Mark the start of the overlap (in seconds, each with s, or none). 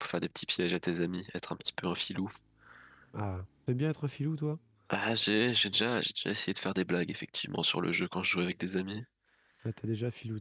none